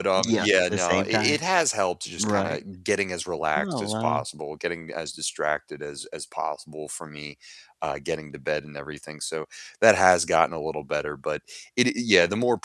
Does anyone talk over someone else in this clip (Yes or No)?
Yes